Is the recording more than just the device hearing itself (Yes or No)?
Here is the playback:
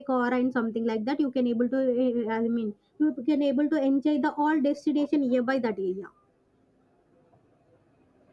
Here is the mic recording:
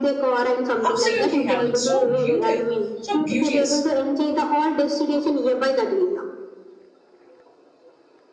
Yes